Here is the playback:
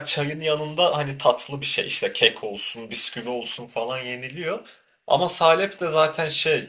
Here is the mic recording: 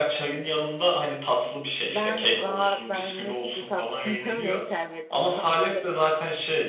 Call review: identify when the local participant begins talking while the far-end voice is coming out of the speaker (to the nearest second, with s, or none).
2 s